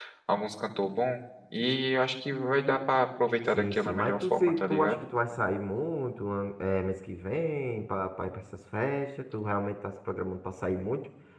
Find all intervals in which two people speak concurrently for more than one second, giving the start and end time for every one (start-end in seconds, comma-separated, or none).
3.5-5.0